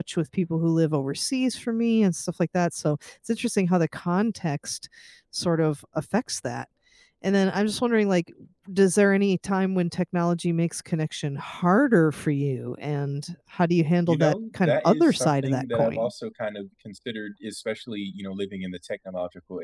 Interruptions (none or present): present